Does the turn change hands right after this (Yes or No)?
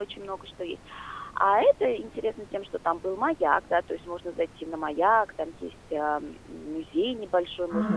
Yes